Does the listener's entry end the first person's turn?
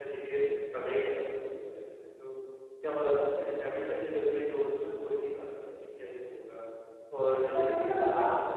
Yes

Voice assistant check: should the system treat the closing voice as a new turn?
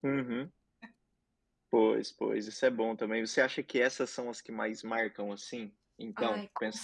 Yes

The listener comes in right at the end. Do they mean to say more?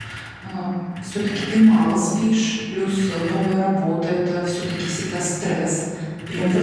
No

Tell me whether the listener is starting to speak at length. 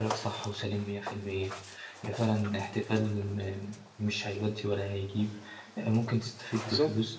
No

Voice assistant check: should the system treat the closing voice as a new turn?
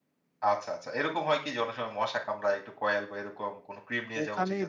Yes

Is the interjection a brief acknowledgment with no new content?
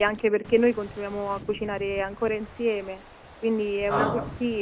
Yes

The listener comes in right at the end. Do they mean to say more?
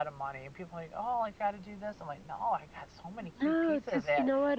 Yes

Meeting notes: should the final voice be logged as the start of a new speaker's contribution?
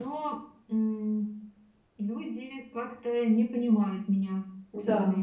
Yes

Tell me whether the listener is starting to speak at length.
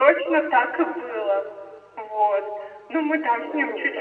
No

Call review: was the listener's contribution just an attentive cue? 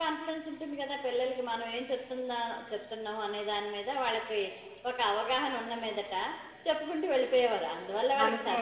Yes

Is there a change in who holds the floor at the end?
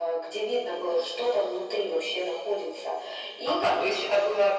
Yes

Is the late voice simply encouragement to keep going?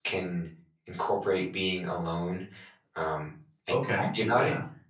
No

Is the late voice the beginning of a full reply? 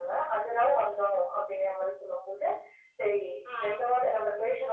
No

